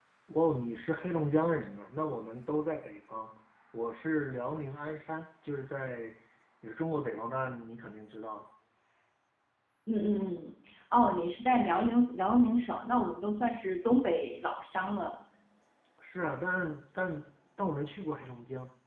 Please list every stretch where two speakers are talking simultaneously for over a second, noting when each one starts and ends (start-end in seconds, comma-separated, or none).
none